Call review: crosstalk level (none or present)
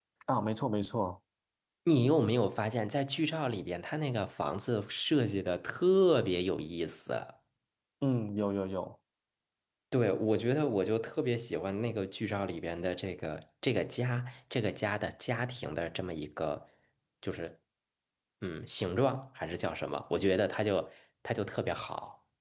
none